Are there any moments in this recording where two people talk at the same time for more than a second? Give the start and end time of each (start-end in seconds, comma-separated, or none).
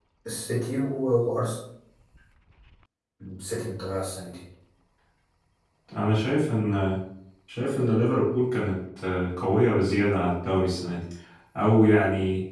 none